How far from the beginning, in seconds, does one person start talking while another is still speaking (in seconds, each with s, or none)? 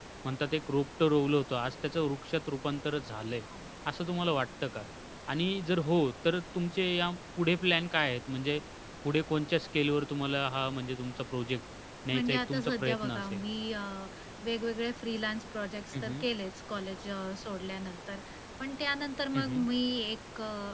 12.1 s